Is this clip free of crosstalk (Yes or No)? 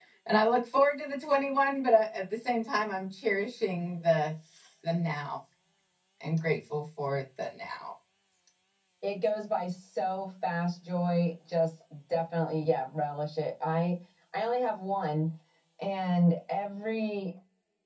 Yes